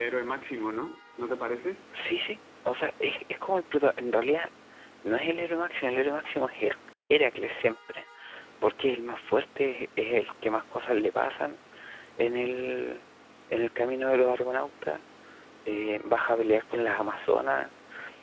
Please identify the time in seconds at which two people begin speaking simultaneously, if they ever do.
none

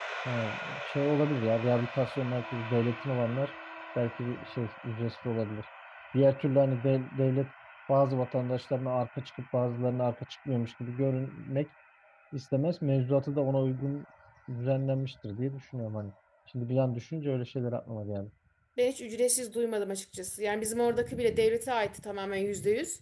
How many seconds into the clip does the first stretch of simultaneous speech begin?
none

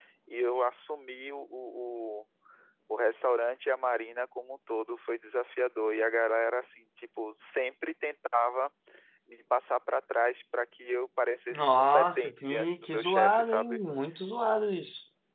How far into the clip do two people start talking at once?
11.5 s

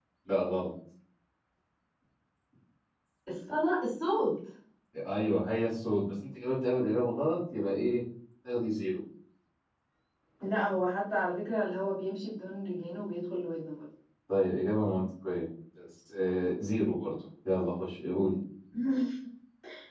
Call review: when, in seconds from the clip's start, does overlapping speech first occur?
none

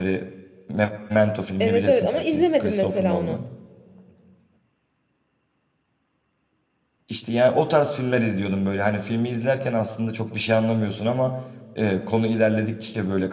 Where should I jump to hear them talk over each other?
1.6 s

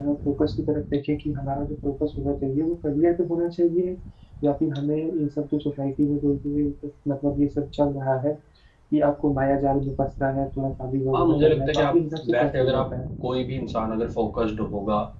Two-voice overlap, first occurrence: 11.1 s

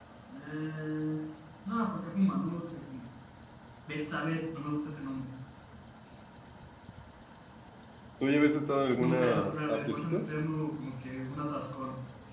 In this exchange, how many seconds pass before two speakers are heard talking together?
9.0 s

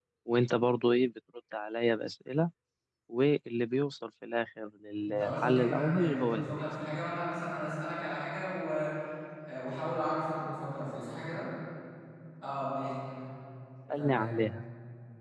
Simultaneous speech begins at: 5.1 s

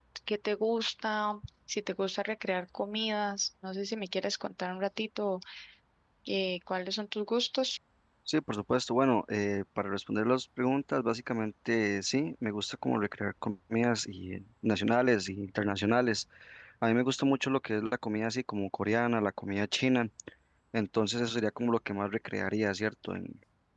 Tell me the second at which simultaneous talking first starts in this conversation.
none

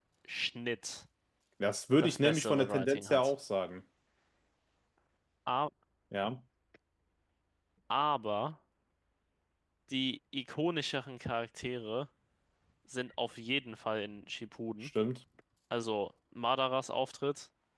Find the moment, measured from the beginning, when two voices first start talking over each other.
2.0 s

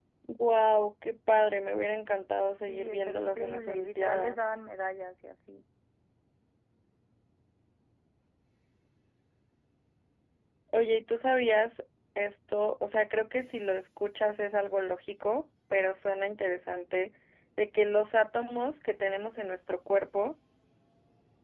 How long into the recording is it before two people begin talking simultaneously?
2.7 s

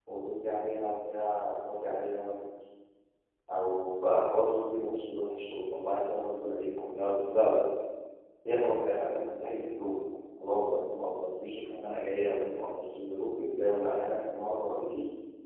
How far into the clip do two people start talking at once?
none

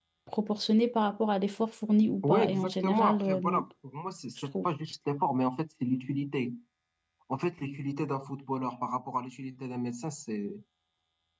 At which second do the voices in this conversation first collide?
2.2 s

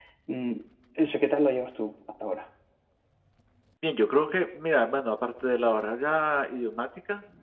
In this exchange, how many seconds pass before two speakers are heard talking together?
none

